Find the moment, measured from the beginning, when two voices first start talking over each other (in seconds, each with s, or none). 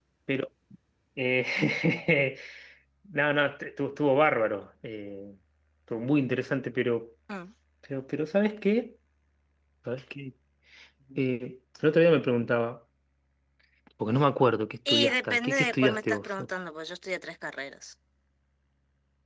14.8 s